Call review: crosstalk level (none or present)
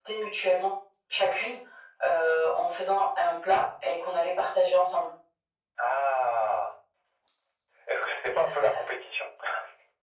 none